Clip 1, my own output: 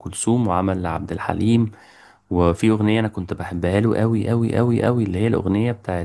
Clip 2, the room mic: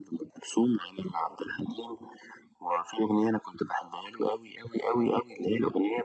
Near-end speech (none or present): none